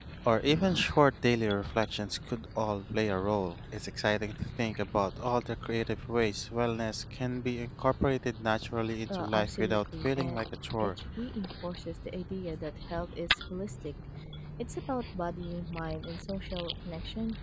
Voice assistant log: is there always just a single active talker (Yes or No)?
No